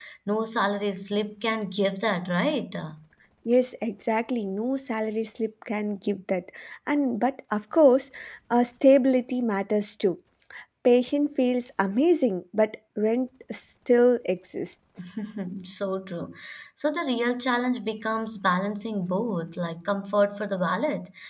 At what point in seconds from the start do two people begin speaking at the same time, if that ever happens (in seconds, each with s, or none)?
none